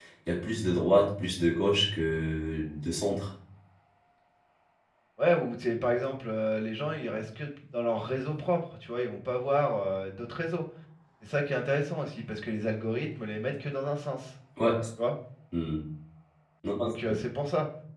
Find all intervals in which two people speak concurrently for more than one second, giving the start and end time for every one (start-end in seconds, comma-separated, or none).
none